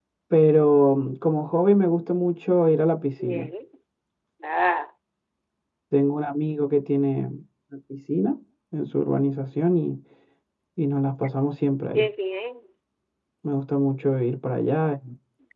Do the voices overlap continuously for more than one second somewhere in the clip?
No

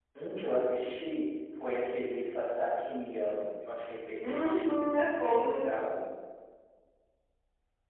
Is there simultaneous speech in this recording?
Yes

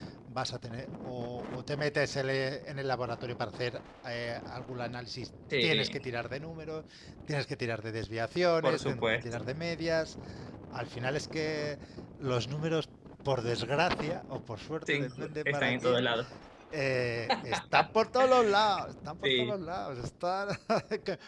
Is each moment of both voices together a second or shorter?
No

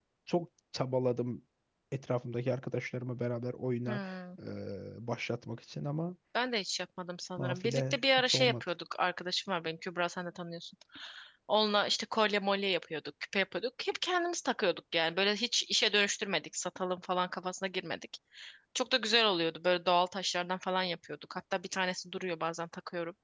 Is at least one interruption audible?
Yes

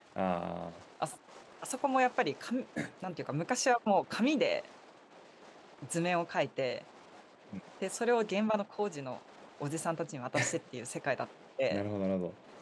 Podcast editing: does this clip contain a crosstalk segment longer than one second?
No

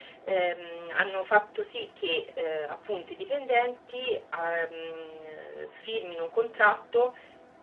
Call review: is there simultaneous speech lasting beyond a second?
No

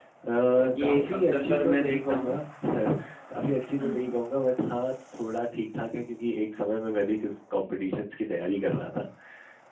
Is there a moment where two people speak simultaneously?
Yes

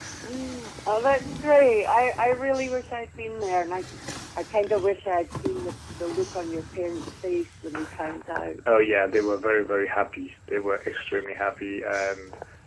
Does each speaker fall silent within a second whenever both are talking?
Yes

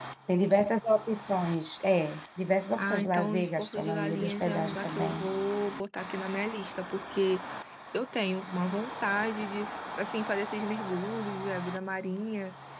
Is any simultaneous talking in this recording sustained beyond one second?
Yes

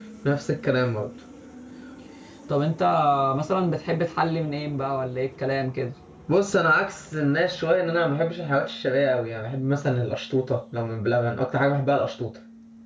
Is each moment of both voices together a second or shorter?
Yes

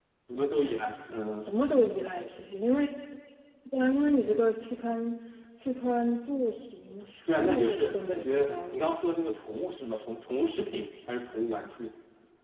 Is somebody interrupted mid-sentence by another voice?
Yes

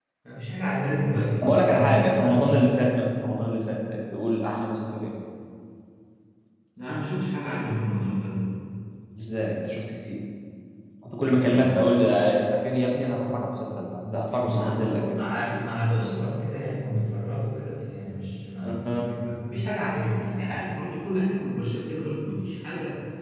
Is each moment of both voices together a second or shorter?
No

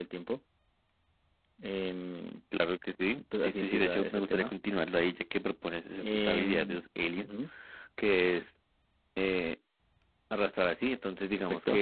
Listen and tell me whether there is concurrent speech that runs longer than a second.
Yes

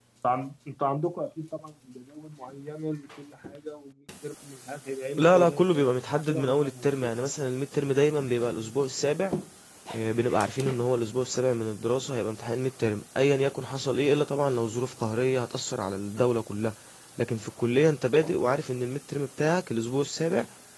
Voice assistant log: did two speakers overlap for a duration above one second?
Yes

